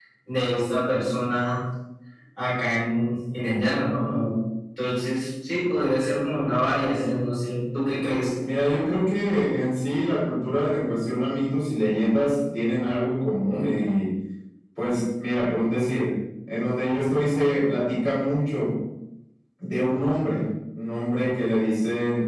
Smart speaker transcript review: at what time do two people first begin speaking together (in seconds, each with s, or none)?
none